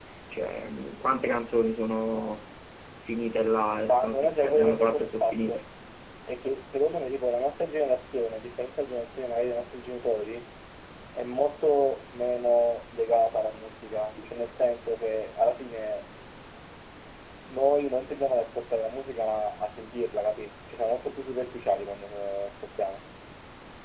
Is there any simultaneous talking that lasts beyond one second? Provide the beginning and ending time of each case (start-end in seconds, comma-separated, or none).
3.8-5.6